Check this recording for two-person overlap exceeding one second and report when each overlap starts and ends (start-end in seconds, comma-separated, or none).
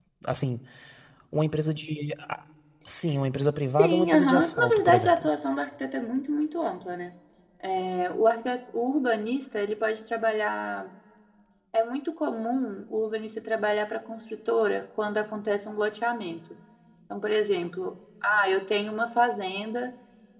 3.8-5.3